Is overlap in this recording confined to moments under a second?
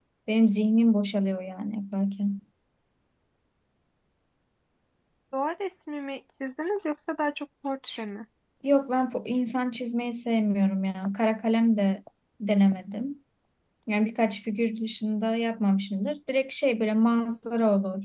Yes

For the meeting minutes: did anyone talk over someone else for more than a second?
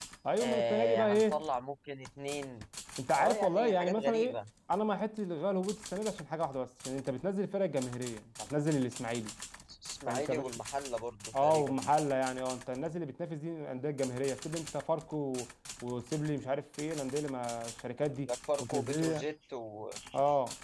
Yes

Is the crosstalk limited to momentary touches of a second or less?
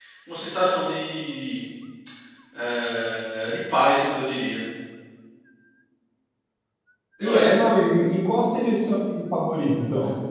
Yes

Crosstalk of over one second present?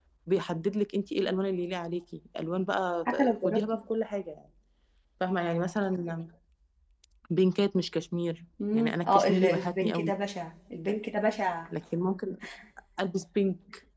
Yes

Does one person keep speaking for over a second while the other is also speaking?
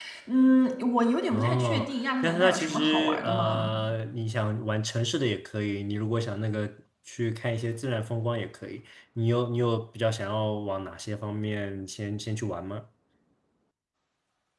Yes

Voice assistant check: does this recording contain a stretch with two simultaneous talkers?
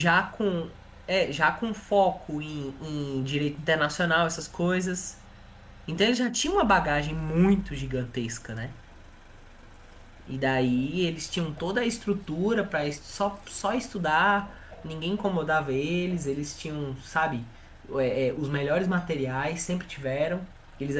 No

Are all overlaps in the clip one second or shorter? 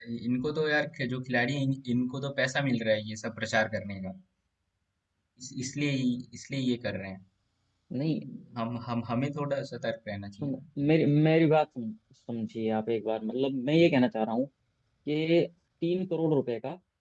Yes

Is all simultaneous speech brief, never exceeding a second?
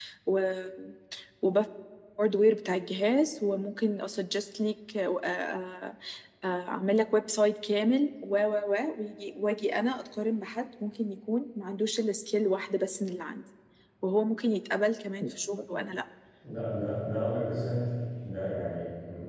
Yes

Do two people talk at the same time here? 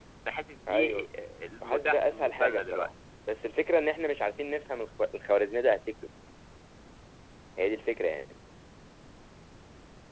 Yes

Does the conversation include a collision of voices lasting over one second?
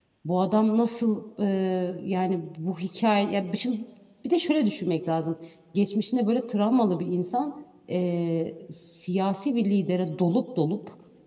No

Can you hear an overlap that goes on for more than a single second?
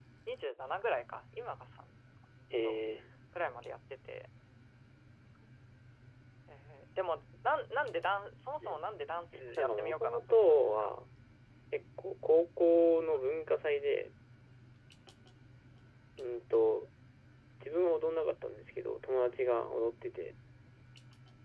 Yes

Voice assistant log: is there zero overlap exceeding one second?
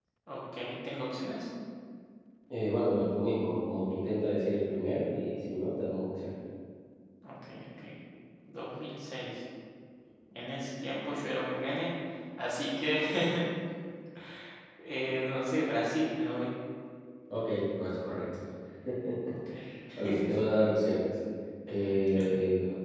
Yes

